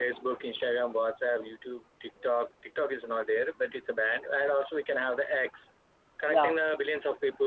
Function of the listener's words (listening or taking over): listening